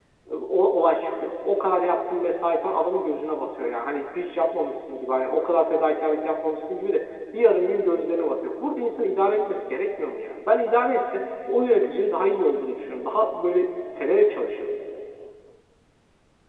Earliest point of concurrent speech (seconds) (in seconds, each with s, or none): none